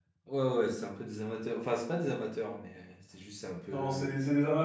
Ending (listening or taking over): taking over